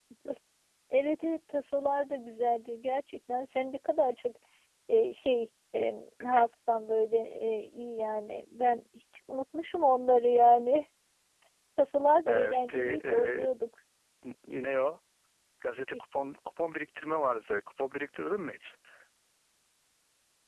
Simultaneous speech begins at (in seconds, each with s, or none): 12.3 s